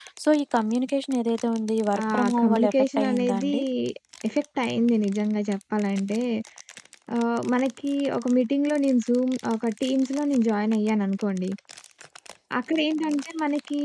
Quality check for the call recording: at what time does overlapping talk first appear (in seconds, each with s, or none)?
1.9 s